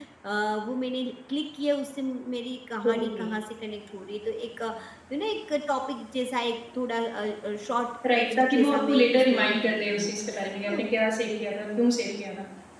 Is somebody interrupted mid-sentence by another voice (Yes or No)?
Yes